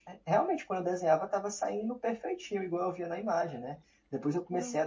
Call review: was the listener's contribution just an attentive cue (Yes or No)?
Yes